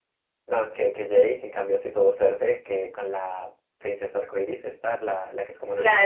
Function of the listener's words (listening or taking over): taking over